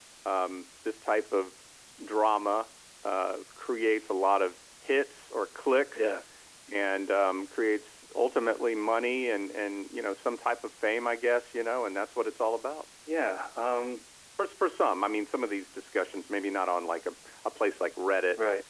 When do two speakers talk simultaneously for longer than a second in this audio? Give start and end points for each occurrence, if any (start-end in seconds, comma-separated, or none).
none